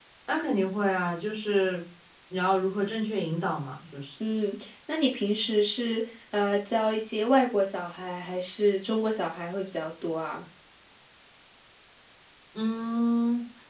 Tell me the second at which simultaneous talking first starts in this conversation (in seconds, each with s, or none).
none